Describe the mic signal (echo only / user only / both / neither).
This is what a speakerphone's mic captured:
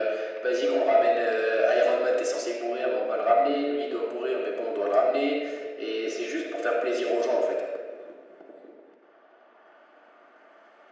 echo only